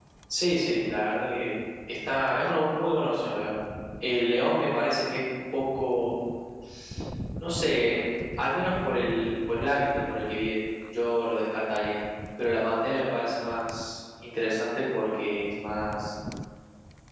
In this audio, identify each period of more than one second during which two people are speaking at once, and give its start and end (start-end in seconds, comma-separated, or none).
none